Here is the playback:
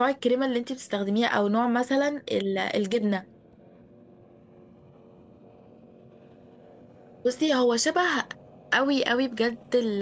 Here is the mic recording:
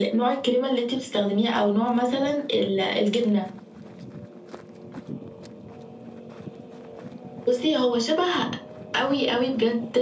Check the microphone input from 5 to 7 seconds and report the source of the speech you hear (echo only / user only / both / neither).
neither